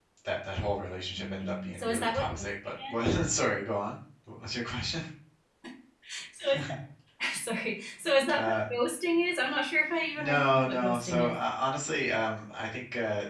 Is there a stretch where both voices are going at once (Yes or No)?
Yes